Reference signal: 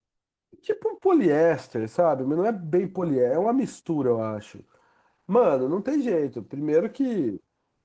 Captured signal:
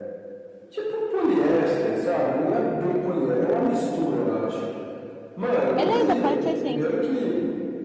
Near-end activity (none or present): present